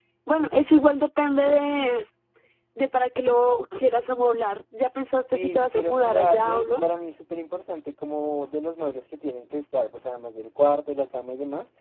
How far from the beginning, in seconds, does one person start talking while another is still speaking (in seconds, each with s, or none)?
5.3 s